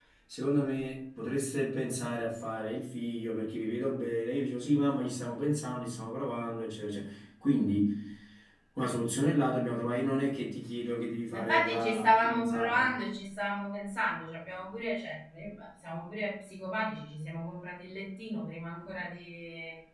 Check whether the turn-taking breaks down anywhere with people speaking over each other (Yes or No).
Yes